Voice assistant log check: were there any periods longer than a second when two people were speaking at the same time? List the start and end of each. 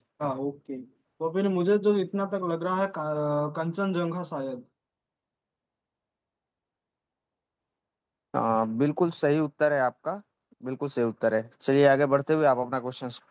none

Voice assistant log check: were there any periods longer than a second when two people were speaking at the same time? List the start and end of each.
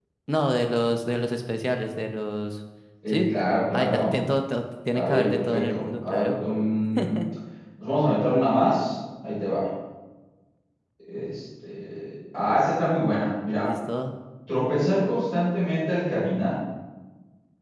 4.9-6.3

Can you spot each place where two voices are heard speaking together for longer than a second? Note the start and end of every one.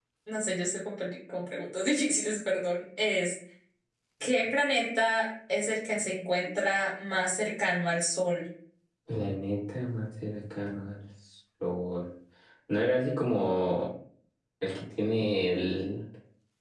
none

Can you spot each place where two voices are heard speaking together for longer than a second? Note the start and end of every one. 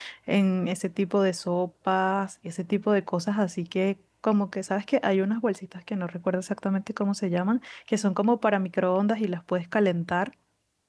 none

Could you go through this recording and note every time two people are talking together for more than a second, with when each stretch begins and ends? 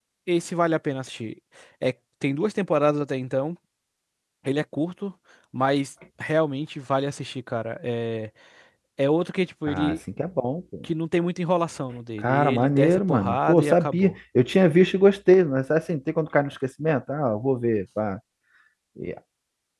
12.2-14.1

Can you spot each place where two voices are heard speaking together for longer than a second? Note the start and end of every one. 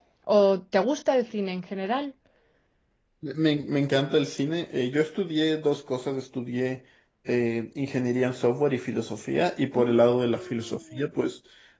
9.8-11.1

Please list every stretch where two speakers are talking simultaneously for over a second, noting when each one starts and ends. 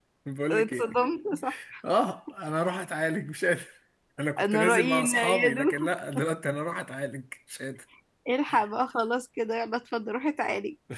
4.4-5.9

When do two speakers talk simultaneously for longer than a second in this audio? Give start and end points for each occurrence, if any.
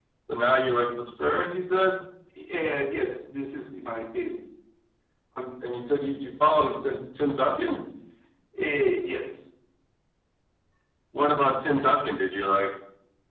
none

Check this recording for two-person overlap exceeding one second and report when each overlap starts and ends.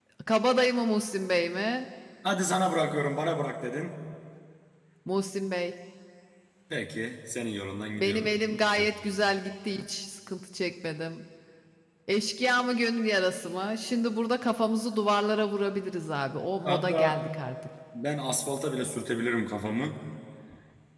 none

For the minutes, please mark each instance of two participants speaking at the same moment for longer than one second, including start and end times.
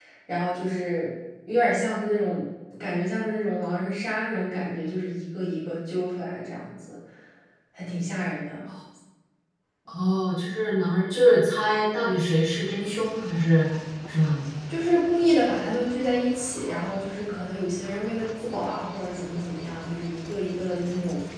none

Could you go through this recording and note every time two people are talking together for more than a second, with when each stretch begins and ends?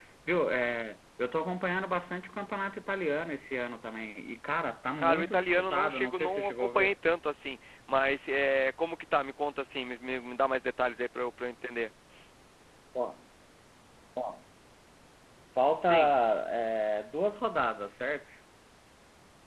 5.0-6.9

